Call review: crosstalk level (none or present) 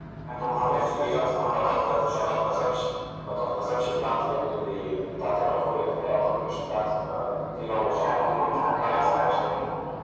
present